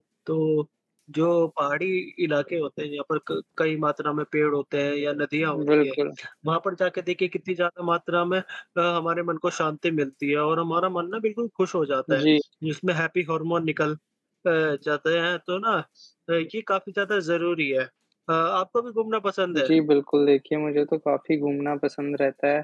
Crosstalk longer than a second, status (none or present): none